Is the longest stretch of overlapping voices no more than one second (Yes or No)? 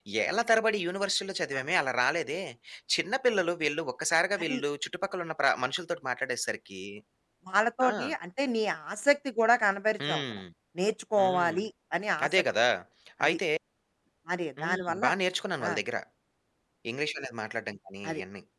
Yes